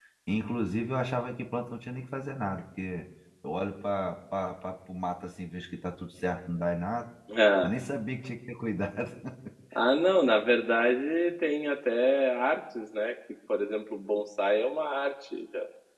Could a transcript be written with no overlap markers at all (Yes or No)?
Yes